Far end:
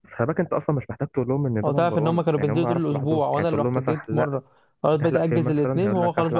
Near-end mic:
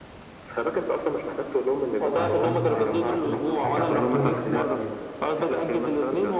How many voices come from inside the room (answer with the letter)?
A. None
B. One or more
B